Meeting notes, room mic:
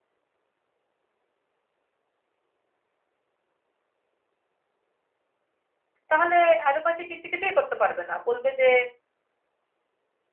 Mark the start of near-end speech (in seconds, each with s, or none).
6.1 s